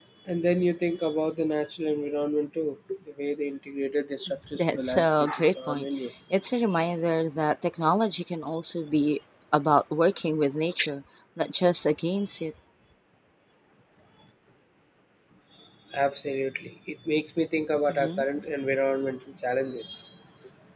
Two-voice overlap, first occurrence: 4.6 s

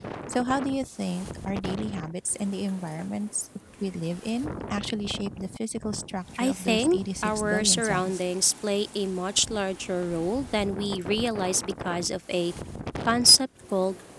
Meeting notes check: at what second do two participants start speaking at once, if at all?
6.4 s

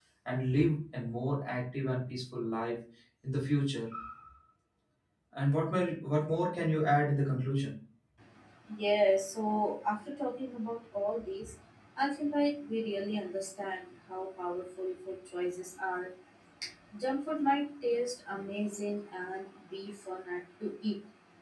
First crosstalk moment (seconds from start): none

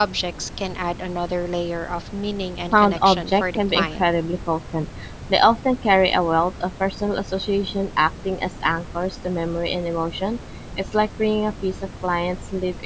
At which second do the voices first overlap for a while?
2.7 s

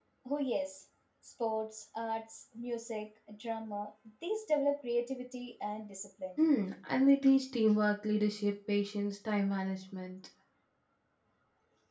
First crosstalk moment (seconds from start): none

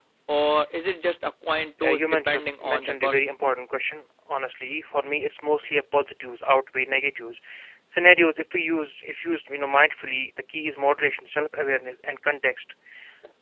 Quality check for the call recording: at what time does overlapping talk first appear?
1.8 s

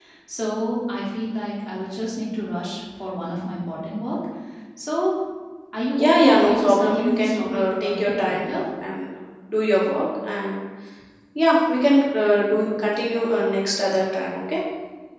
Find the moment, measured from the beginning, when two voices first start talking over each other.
6.0 s

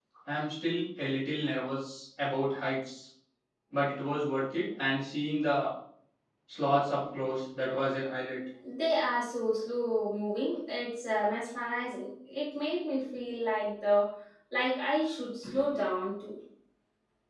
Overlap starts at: none

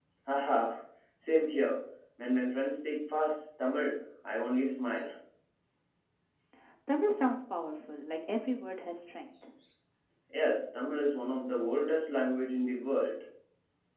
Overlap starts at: none

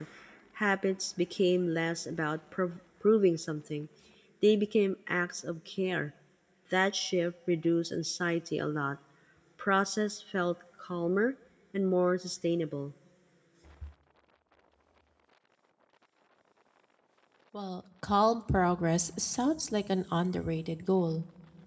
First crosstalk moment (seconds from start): none

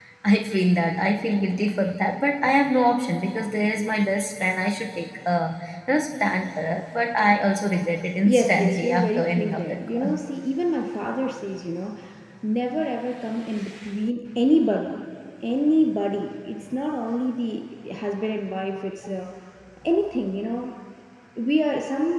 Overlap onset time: 8.2 s

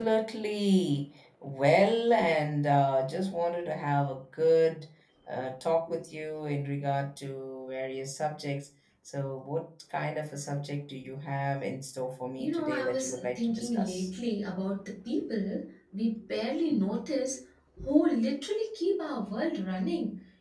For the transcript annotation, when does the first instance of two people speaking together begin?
12.4 s

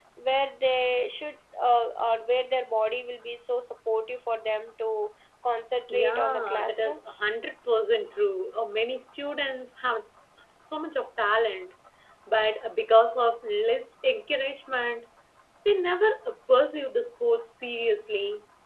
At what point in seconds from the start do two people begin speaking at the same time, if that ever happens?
5.9 s

